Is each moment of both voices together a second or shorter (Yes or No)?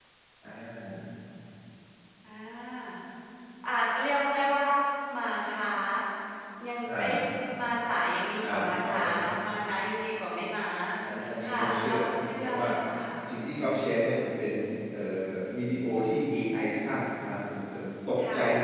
No